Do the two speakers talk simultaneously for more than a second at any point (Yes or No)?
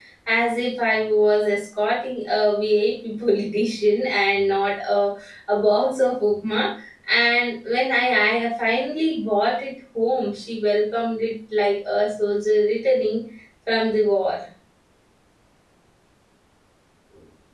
No